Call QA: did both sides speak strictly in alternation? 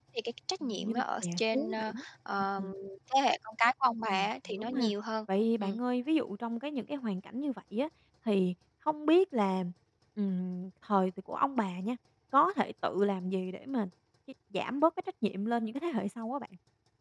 No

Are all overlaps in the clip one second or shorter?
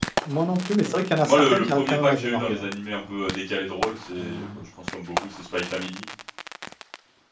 No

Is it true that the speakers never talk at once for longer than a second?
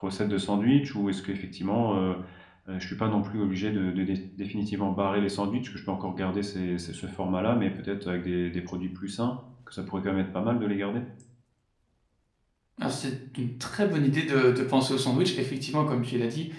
Yes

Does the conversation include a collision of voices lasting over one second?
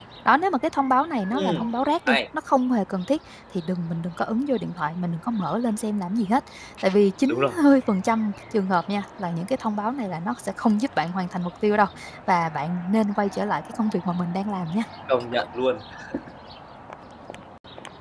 No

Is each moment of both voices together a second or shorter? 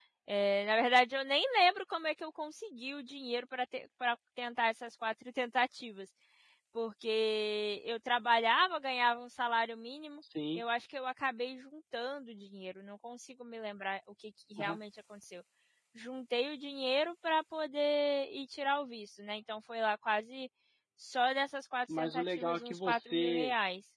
No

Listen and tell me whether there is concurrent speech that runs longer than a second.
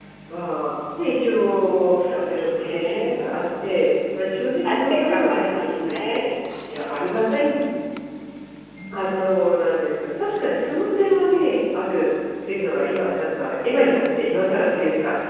Yes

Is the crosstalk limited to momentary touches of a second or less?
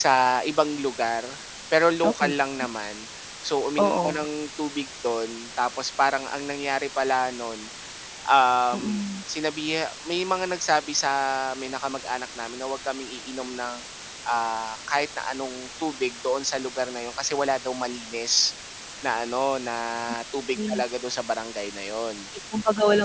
Yes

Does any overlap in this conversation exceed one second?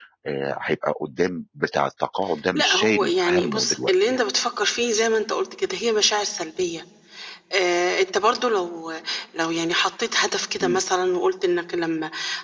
Yes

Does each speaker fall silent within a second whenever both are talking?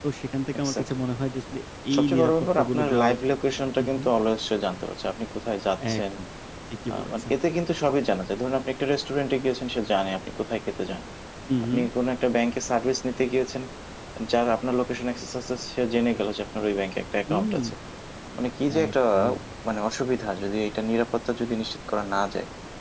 No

